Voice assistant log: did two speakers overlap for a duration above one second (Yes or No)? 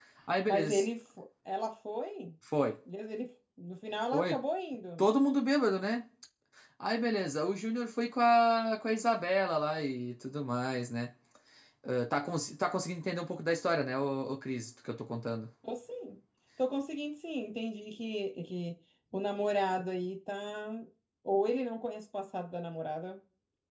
No